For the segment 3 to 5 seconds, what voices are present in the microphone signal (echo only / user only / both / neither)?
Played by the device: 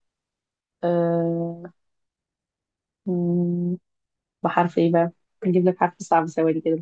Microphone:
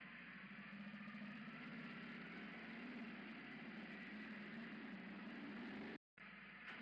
neither